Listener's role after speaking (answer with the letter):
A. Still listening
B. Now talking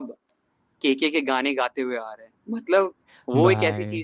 A